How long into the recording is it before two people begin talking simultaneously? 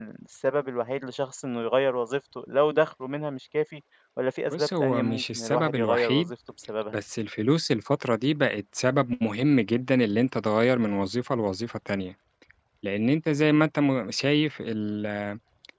5 s

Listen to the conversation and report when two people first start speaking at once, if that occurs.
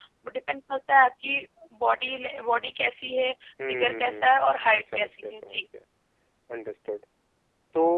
4 s

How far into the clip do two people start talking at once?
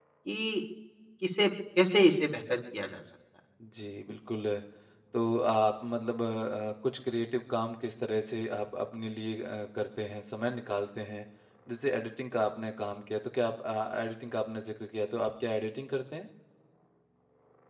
none

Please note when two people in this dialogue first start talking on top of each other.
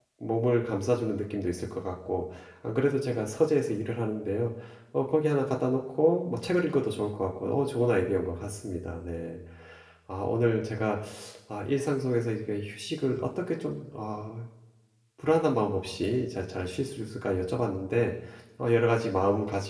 none

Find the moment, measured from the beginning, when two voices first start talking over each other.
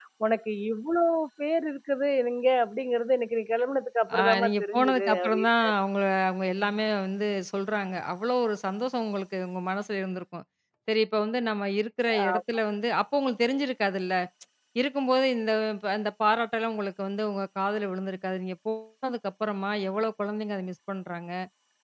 4 s

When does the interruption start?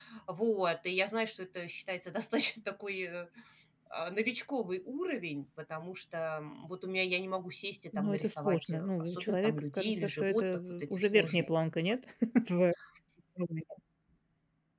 8 s

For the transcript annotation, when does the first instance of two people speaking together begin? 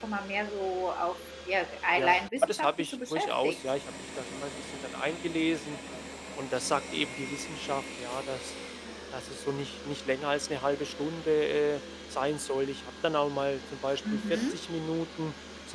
2 s

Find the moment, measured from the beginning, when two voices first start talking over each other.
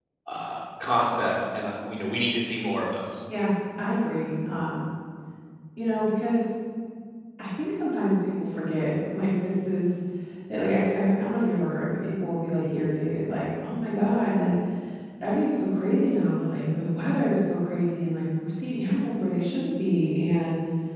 none

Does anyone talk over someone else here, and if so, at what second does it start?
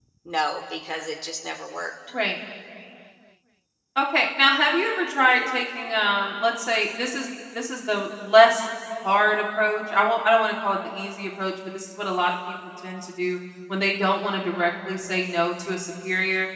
none

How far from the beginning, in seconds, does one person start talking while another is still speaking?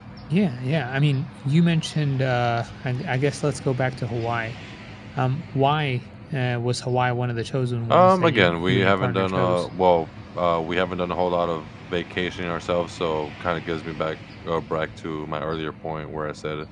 8 s

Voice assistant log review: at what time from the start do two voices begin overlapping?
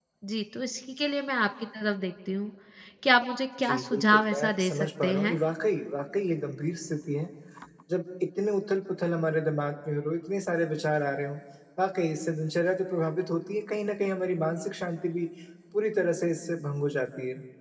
4 s

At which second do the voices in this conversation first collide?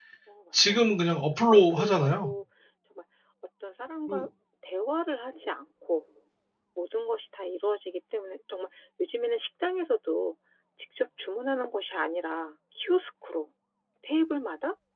1 s

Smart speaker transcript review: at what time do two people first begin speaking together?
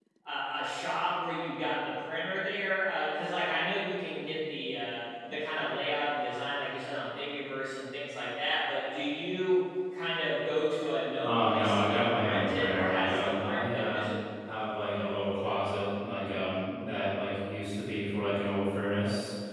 11 s

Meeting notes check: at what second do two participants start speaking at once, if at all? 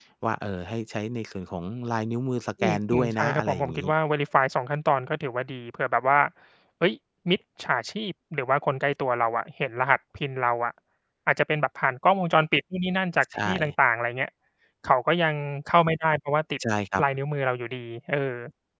3 s

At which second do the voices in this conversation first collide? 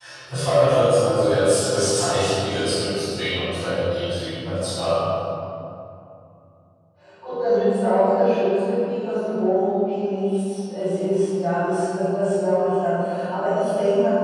none

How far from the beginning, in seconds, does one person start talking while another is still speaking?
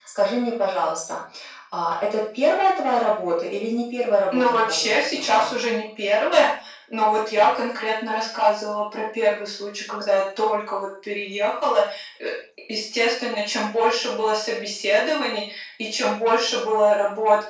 4 s

